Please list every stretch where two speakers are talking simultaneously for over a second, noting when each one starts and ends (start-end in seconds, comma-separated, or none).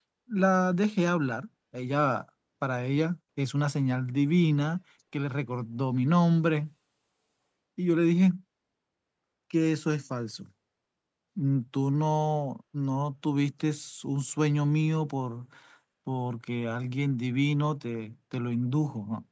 none